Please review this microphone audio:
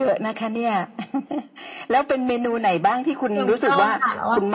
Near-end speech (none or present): present